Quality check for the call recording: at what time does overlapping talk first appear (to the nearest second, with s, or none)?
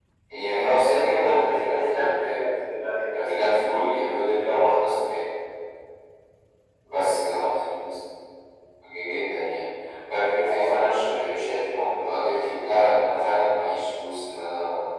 1 s